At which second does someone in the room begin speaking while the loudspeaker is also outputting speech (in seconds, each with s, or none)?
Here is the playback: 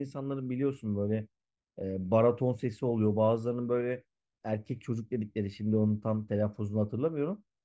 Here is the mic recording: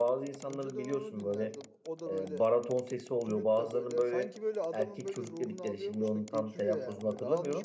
0.5 s